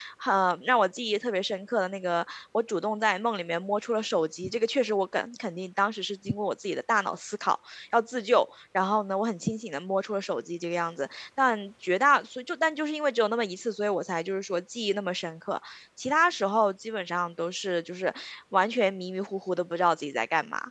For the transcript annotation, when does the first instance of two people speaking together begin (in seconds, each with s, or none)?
none